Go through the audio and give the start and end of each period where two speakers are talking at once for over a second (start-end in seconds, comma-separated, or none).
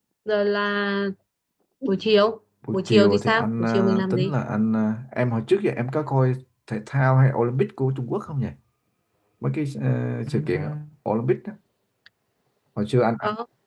2.7-4.3